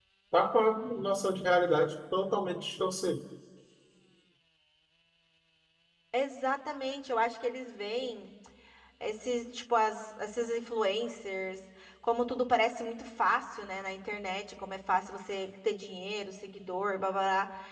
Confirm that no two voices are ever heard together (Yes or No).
Yes